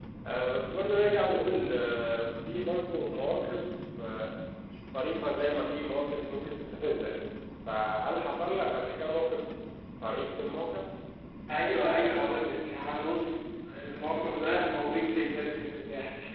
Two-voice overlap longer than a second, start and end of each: none

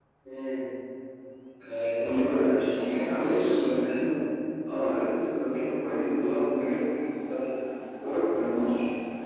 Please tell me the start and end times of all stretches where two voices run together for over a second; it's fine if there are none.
1.6-4.1

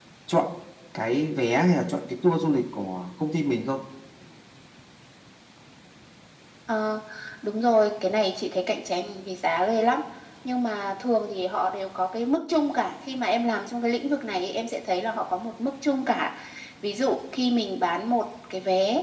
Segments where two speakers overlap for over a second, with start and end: none

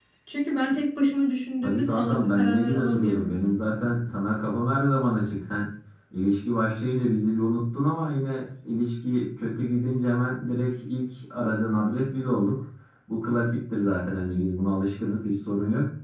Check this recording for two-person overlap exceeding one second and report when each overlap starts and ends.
1.6-3.4

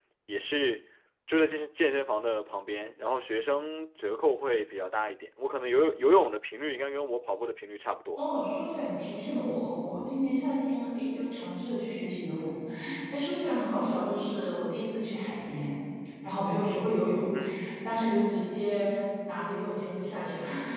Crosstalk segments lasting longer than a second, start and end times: none

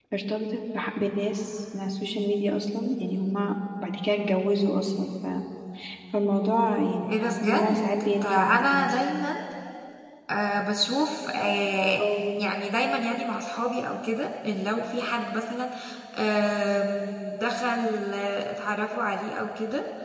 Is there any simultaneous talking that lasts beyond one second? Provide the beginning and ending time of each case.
7.0-9.0

